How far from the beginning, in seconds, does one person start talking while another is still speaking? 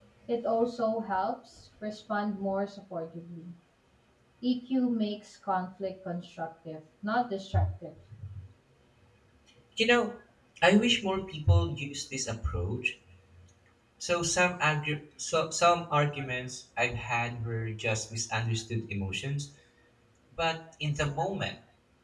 none

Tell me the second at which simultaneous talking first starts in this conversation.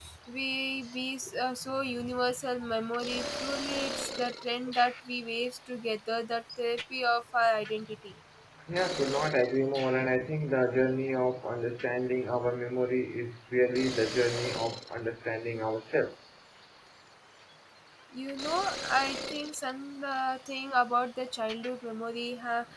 none

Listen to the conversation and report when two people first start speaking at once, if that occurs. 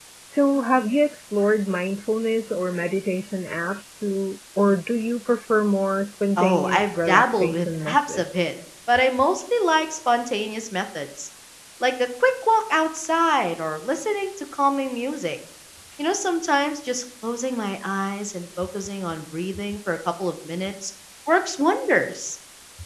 6 s

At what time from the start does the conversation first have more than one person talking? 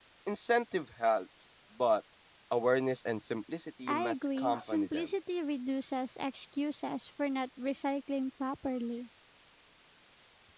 4 s

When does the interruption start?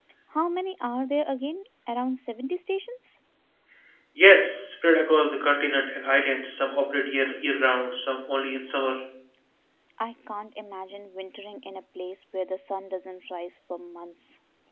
none

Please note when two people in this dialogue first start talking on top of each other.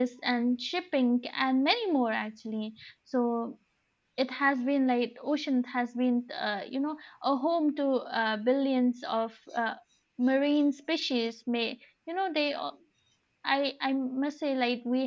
none

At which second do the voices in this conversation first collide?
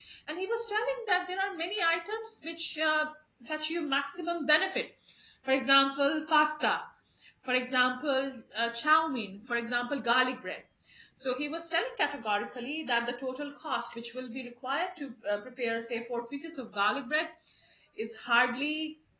none

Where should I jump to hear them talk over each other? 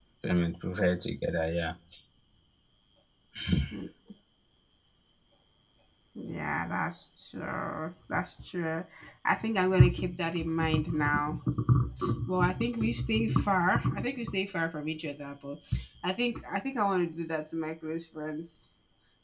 none

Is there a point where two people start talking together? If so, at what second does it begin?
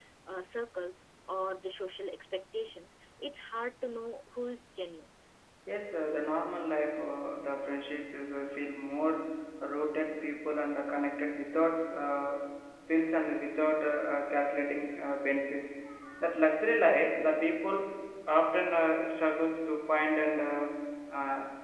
none

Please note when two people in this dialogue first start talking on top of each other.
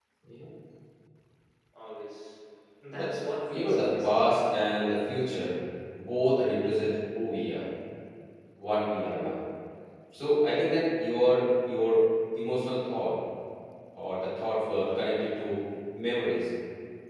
3 s

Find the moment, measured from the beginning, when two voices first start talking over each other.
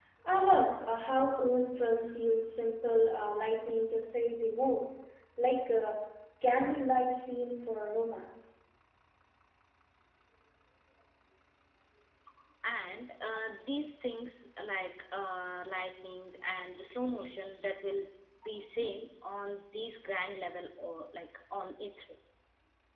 none

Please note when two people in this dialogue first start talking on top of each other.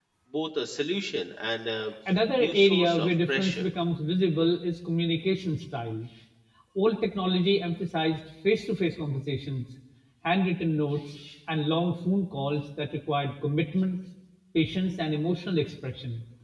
2 s

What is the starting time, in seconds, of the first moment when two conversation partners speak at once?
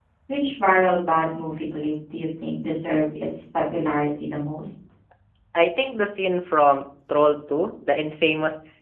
none

